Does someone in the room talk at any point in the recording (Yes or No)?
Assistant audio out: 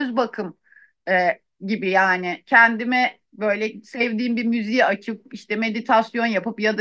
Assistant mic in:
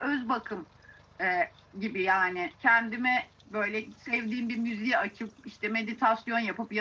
No